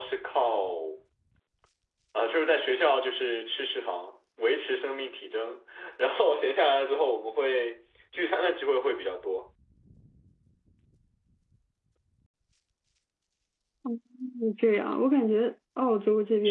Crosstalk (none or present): none